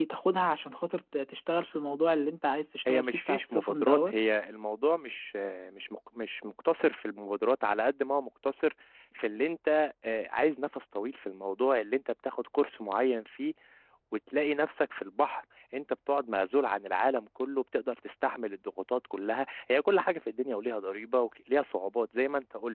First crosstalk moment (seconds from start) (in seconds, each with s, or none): 2.8 s